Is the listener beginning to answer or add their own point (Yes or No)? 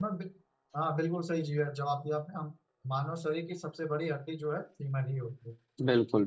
Yes